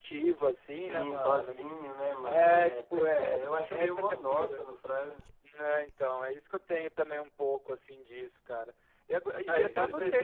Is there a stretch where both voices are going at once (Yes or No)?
Yes